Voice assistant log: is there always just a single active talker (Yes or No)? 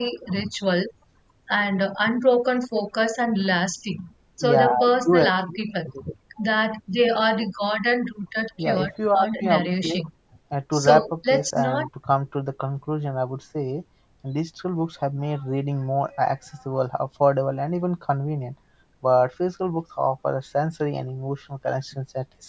No